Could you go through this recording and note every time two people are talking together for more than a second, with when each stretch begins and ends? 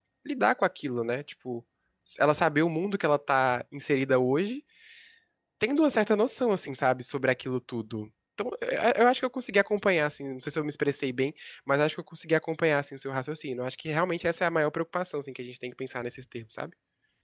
none

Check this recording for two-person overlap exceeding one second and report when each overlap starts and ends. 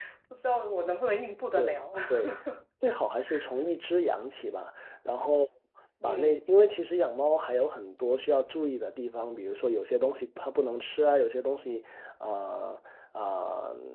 none

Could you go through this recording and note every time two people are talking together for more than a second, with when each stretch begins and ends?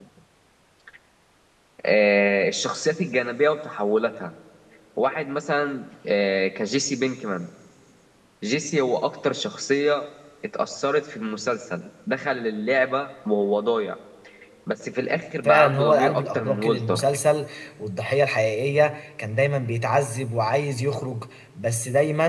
15.4-17.0

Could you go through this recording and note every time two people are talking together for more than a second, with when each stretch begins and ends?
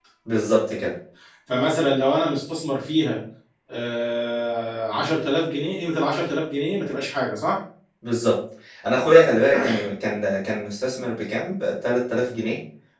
none

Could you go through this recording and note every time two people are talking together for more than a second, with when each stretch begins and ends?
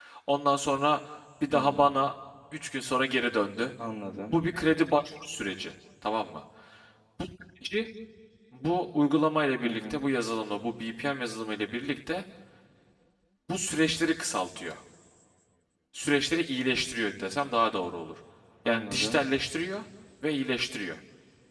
none

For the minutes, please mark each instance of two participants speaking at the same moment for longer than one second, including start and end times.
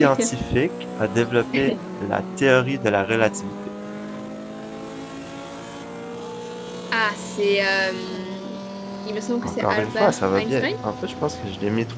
9.4-10.7

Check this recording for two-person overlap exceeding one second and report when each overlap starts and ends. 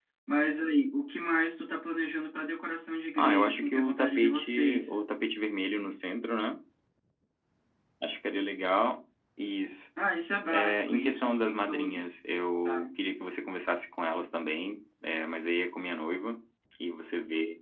3.2-4.9, 10.5-12.1

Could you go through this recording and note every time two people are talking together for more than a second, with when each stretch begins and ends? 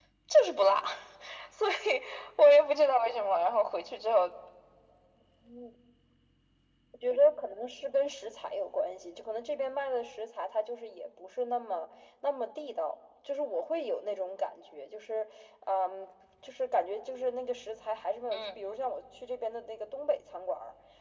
none

